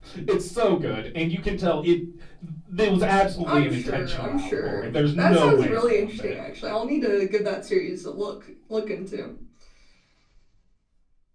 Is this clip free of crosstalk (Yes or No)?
No